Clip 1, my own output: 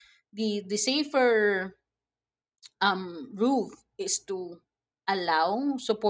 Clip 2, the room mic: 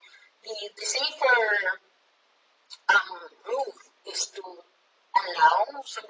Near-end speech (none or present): none